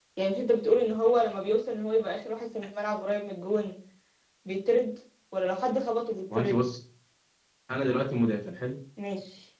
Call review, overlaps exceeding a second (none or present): none